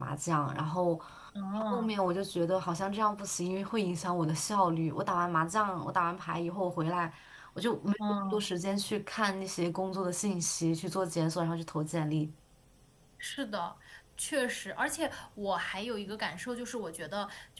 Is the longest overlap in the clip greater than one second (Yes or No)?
No